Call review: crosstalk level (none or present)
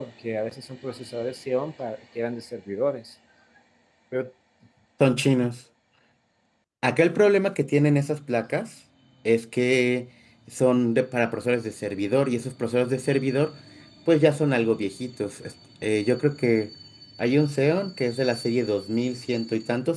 none